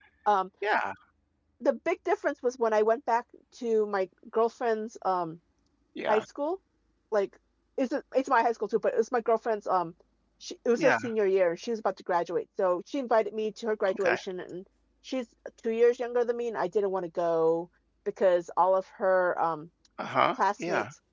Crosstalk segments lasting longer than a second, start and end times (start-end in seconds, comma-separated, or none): none